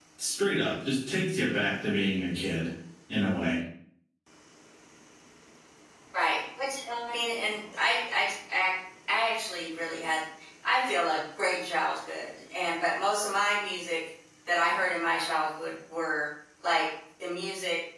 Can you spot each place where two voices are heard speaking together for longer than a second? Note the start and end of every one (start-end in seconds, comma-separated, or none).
none